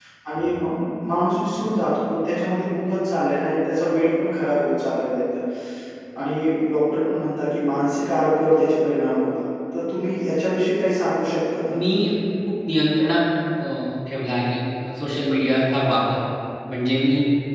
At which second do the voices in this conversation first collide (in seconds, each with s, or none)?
none